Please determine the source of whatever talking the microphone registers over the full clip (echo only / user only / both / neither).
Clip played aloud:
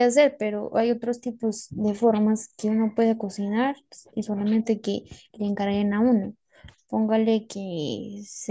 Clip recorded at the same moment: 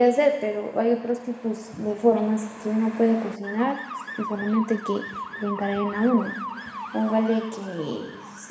echo only